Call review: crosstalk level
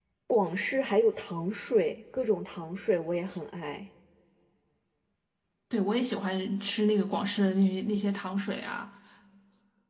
none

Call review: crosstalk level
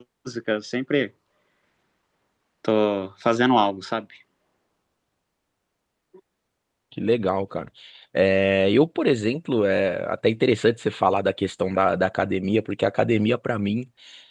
none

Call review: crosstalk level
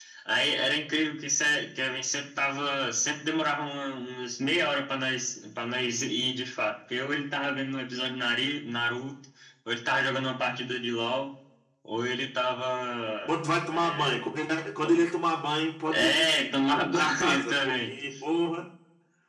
present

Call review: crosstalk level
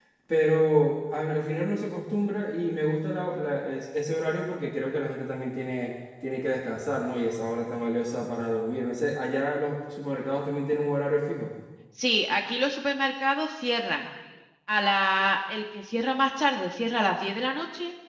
none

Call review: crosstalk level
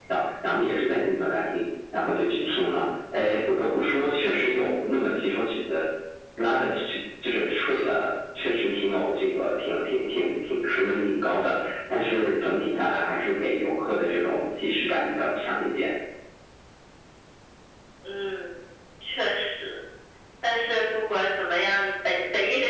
none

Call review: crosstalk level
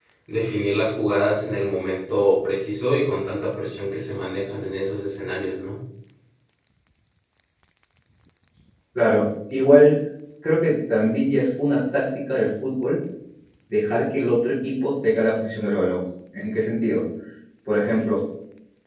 none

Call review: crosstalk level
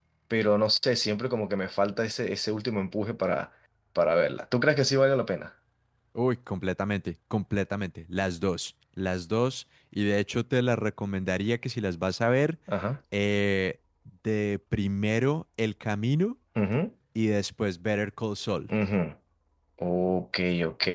none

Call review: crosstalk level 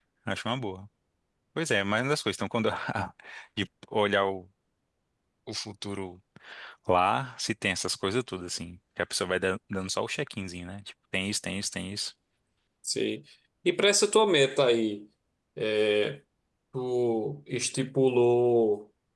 none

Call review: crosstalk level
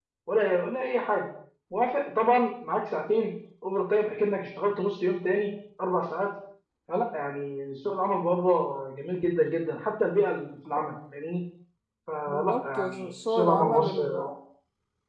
present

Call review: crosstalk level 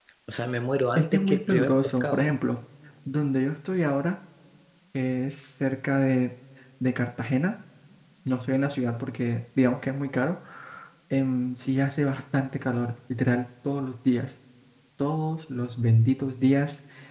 present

